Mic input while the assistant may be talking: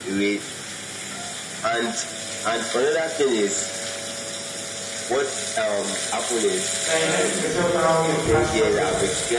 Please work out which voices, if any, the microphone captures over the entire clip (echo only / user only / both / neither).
both